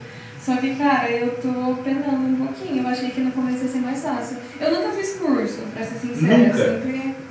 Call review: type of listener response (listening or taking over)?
listening